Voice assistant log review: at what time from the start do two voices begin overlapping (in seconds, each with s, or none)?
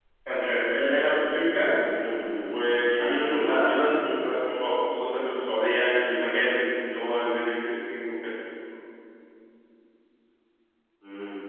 2.4 s